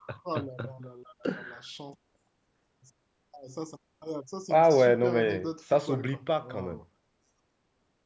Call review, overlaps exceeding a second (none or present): present